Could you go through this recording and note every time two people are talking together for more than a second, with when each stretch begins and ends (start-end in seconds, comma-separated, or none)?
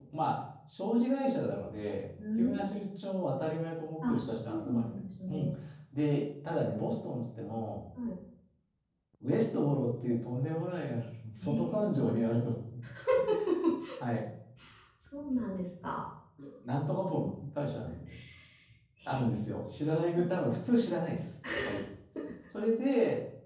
4.1-5.5